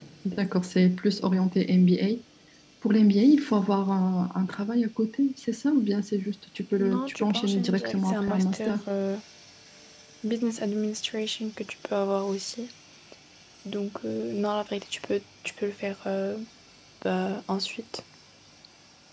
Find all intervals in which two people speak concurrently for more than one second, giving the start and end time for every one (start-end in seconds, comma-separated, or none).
6.8-8.8